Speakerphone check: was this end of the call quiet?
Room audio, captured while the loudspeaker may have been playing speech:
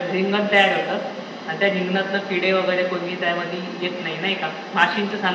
Yes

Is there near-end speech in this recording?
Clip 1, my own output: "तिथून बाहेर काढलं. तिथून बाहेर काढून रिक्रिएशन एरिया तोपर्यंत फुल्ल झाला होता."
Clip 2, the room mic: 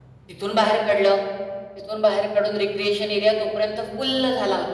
No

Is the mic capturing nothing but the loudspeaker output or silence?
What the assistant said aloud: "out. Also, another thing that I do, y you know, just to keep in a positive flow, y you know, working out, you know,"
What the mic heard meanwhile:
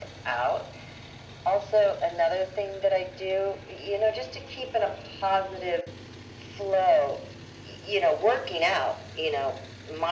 Yes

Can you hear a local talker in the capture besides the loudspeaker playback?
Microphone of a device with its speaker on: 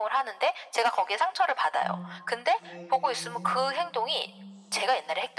Yes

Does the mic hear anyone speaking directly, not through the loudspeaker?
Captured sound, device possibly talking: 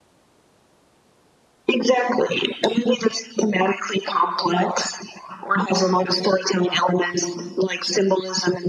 No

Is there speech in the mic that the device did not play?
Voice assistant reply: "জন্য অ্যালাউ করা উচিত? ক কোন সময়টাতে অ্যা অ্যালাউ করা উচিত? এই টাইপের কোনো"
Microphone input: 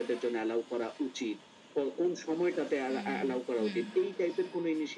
Yes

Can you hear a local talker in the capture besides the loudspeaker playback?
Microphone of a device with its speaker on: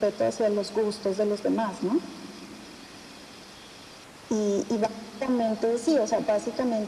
No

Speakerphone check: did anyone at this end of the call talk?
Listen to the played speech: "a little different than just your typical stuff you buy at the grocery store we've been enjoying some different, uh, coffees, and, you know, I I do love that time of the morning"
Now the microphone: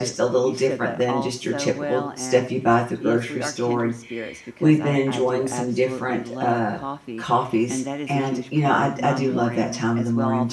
Yes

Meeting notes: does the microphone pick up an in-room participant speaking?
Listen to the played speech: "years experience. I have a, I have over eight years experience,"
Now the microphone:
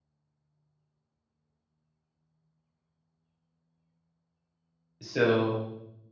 Yes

